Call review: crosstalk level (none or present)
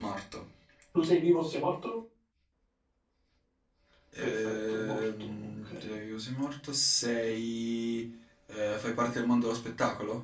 present